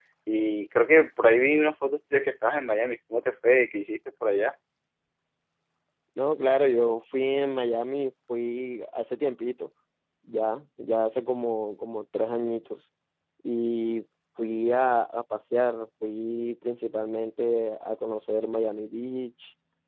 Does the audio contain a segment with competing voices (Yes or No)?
No